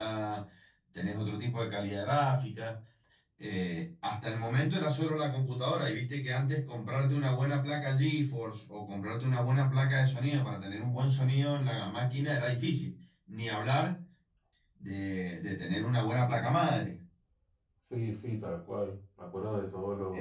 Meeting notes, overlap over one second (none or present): none